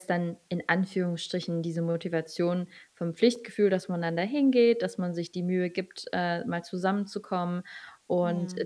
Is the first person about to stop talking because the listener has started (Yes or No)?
No